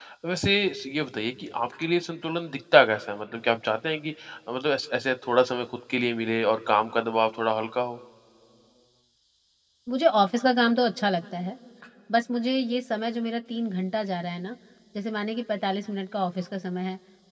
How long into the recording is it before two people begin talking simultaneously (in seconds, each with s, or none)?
none